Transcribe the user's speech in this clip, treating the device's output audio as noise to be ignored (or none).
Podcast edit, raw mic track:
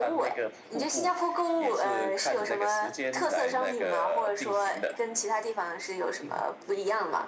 嗯